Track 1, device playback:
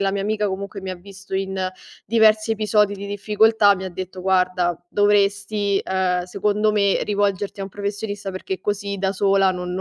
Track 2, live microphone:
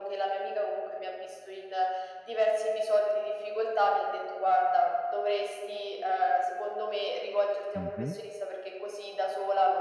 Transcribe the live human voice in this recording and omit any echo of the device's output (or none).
Mh-mh,